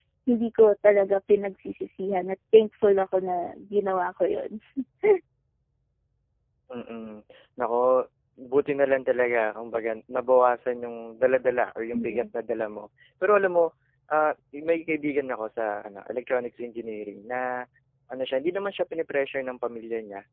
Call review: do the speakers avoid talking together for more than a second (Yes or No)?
Yes